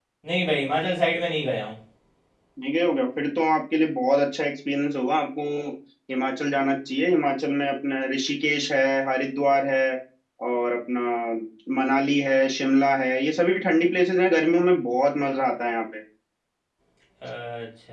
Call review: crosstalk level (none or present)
none